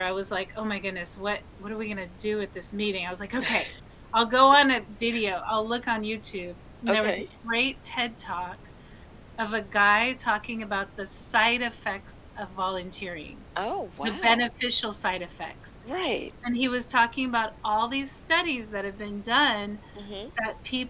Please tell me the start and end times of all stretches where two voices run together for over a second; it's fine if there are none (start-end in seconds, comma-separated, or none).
none